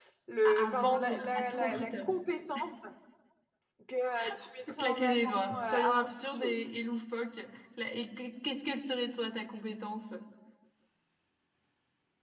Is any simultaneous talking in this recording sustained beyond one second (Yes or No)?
Yes